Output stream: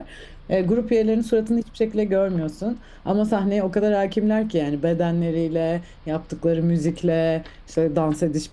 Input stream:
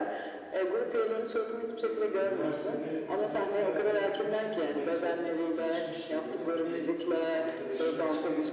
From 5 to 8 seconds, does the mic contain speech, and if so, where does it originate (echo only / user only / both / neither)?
both